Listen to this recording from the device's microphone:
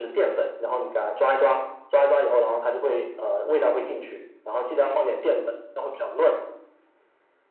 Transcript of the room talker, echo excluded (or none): none